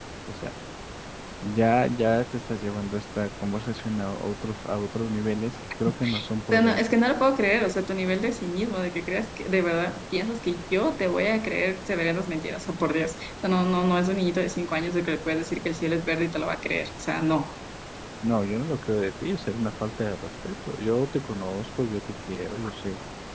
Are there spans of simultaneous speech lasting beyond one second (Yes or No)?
No